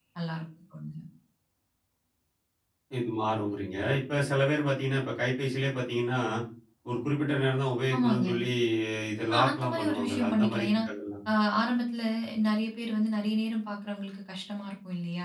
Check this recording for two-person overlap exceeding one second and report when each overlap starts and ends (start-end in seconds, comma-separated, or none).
9.3-10.7